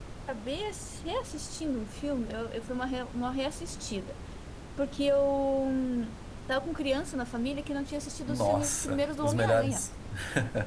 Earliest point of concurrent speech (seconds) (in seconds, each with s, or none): 8.3 s